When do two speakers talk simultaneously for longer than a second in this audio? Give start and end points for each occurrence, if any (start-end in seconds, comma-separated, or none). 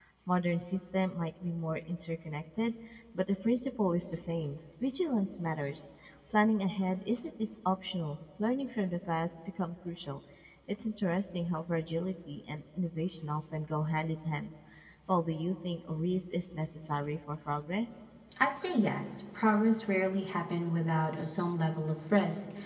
none